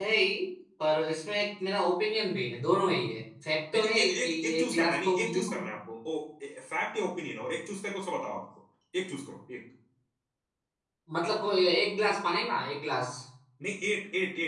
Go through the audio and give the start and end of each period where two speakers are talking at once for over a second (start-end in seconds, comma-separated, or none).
3.7-5.6